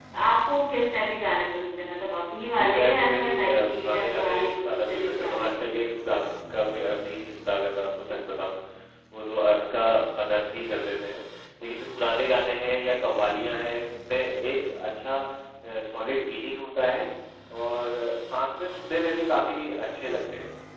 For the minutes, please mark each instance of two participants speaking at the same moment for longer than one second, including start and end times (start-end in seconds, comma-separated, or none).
2.6-5.6